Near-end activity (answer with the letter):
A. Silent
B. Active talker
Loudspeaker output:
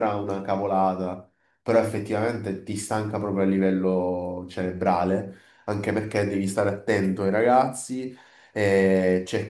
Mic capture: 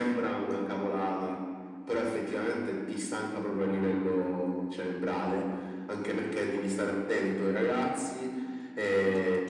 A